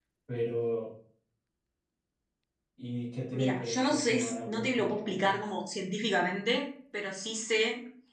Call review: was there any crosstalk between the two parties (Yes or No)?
Yes